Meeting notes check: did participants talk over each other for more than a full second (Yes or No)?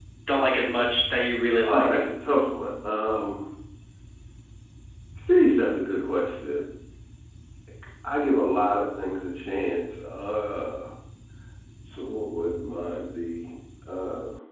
No